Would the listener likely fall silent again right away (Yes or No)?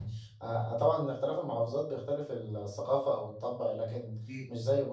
Yes